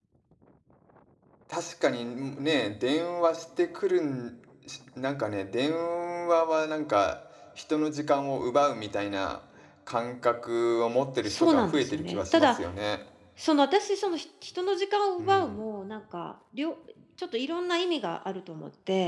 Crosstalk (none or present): present